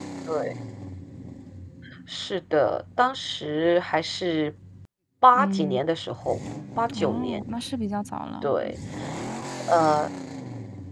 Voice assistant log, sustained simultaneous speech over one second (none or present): none